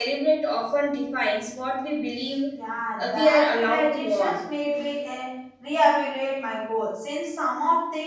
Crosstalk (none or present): present